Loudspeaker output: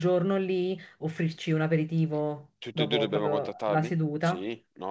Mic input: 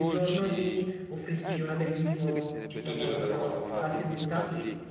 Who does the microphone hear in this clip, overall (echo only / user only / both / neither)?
both